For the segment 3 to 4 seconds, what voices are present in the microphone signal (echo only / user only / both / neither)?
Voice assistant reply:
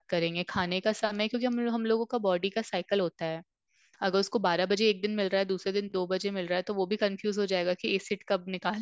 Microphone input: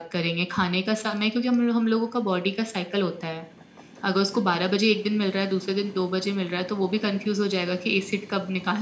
echo only